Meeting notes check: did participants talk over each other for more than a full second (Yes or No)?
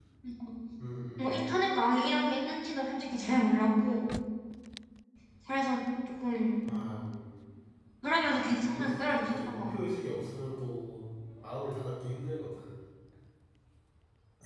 Yes